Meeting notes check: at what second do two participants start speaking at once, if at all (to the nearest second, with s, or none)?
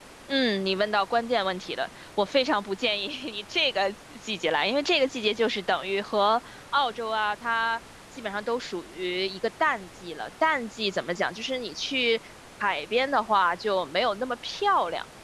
none